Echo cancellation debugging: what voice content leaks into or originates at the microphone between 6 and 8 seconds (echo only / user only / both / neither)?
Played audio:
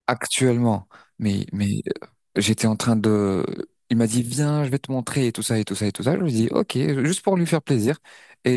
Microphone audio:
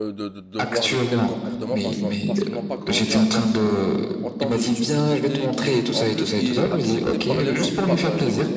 both